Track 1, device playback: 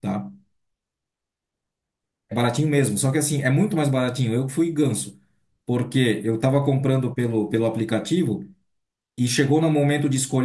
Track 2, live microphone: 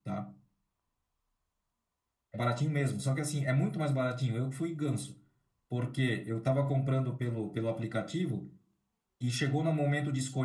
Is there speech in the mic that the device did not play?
No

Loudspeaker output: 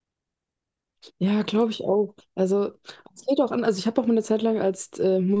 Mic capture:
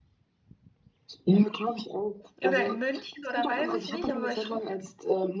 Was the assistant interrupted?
Yes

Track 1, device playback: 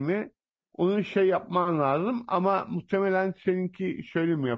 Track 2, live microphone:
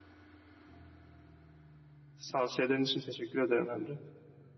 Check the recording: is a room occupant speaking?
Yes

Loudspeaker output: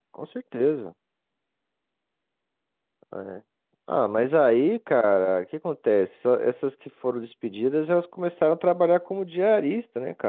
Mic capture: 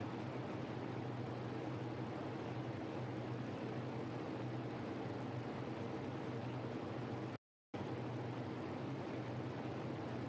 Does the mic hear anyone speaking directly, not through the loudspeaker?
No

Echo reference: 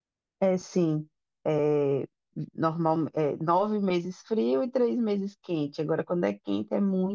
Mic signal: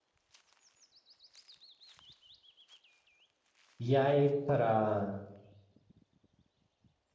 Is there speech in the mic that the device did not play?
Yes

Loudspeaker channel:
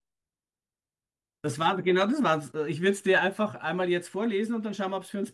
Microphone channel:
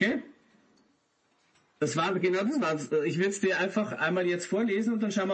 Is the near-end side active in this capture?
No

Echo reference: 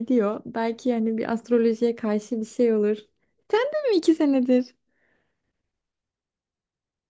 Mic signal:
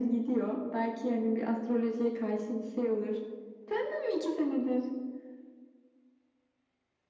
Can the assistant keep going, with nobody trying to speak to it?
Yes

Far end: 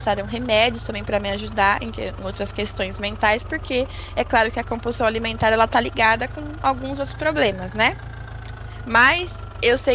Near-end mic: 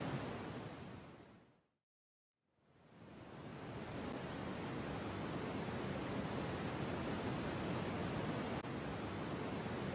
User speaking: No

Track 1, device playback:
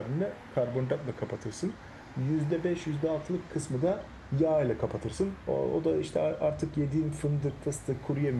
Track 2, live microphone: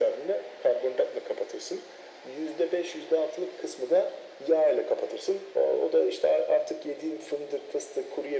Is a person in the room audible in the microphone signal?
No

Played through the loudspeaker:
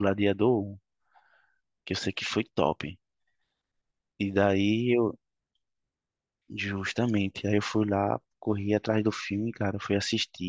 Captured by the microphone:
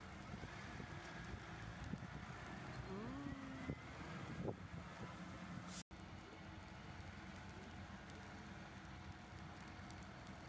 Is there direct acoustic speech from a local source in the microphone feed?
No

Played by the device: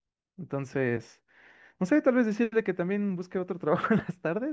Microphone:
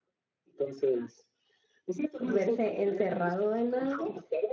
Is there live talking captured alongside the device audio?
Yes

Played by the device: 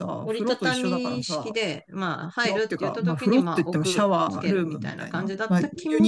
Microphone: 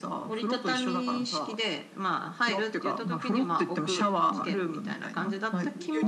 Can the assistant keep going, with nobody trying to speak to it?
Yes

